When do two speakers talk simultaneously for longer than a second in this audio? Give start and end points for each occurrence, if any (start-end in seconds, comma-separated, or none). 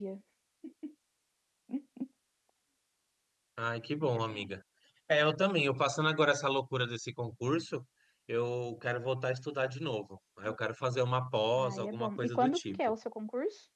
11.6-12.8